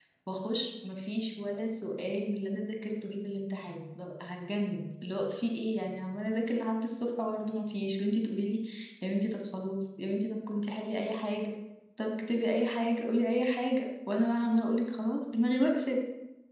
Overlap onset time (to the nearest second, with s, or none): none